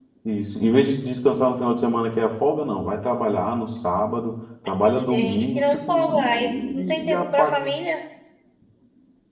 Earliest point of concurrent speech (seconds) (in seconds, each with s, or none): 4.8 s